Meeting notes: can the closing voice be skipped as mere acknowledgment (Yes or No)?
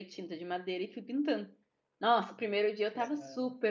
Yes